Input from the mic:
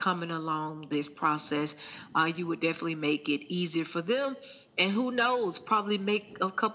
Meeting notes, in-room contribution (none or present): none